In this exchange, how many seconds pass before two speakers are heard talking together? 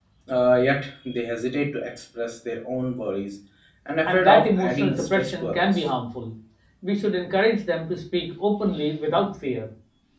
4.1 s

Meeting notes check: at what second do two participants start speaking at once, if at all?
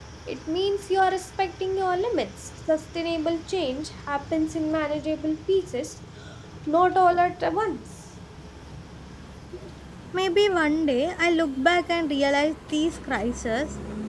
none

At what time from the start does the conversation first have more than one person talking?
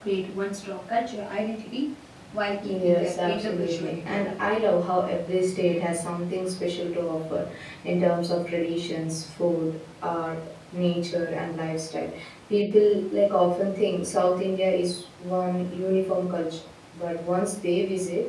2.6 s

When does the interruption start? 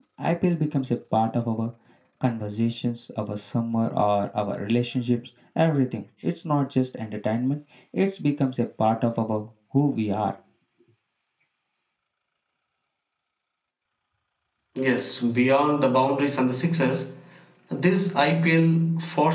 none

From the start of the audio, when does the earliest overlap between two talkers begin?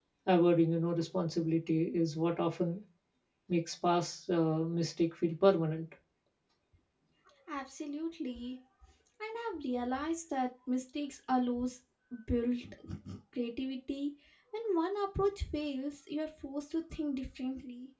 none

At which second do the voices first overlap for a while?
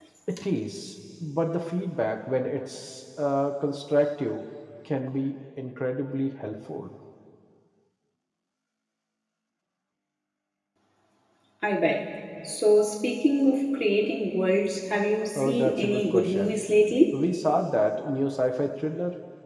15.4 s

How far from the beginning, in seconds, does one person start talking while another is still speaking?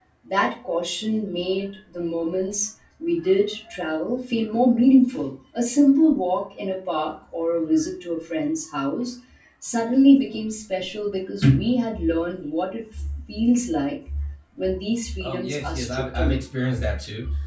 15.2 s

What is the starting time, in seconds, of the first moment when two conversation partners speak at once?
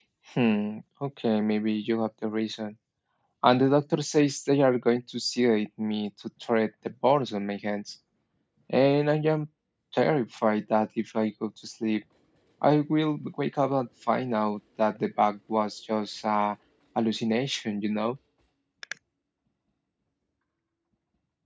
none

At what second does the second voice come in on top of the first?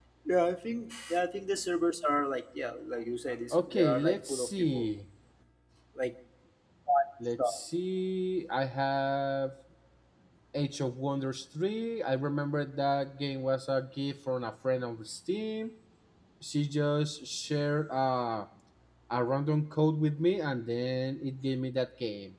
3.5 s

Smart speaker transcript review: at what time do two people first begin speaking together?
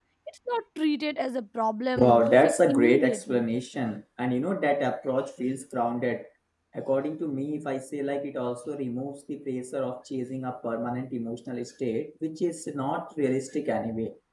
2.0 s

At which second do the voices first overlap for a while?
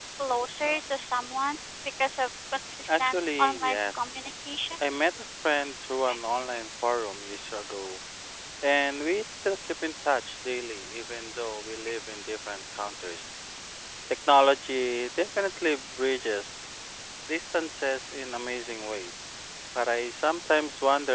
2.9 s

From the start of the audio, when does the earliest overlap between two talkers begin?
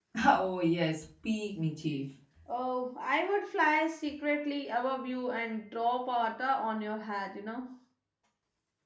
none

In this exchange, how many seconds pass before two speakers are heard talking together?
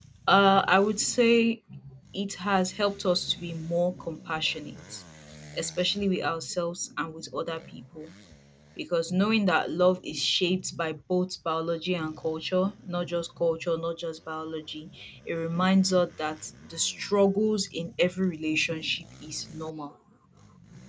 none

